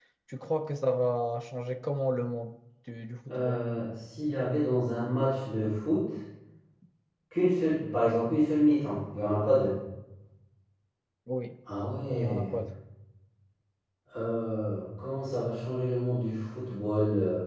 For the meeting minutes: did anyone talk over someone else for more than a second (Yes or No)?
No